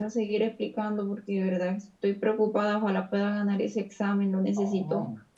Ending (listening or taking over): taking over